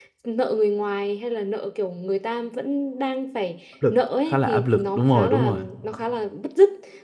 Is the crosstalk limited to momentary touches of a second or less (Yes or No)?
No